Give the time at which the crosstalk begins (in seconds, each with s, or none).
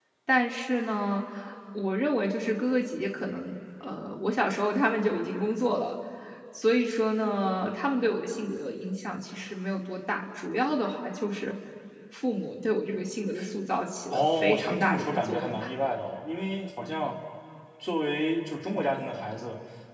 14.1 s